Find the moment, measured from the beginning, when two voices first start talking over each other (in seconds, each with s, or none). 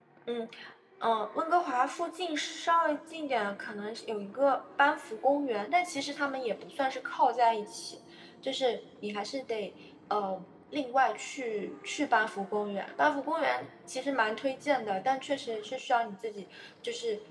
none